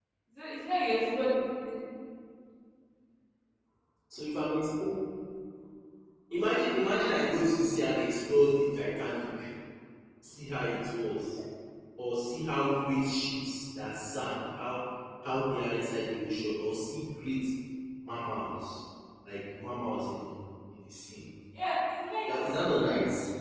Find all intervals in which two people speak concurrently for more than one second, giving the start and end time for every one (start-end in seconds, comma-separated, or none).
none